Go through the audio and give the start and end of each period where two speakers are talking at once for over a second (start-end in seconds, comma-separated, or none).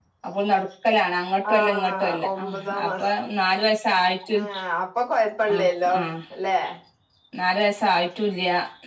1.5-3.1